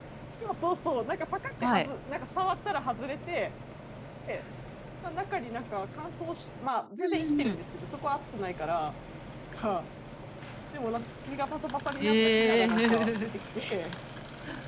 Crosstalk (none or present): present